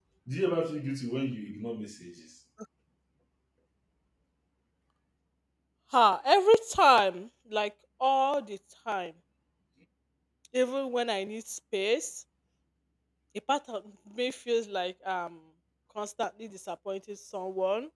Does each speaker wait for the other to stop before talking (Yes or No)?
Yes